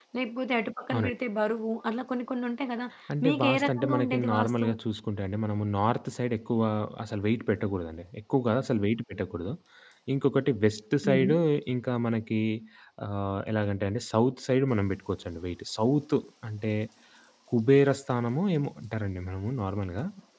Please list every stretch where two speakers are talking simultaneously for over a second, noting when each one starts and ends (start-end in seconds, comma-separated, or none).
3.2-4.6